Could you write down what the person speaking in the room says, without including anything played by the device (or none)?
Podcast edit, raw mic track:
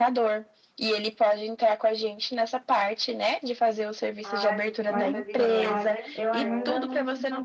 Ah, fico mais aliviada, então.